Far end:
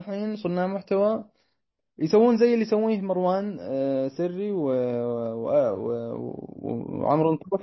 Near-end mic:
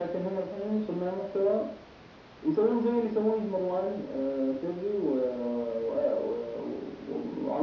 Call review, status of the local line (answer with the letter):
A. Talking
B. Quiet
B